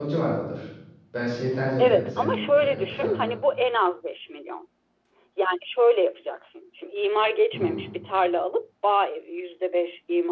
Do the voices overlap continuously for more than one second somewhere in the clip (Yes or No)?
Yes